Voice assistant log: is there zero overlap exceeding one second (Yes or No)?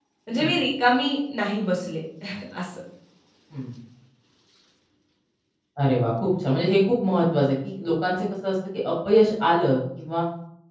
Yes